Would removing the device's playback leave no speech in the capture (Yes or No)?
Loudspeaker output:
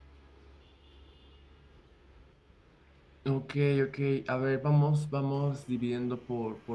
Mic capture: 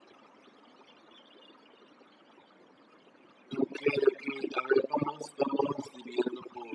Yes